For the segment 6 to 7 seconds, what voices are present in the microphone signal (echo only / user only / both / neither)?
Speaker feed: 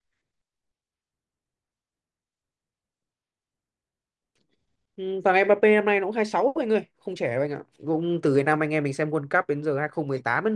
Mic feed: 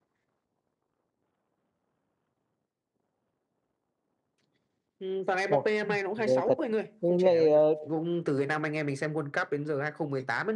both